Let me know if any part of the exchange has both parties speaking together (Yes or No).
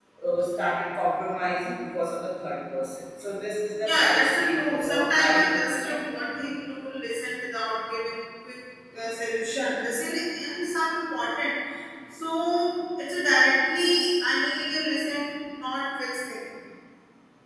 Yes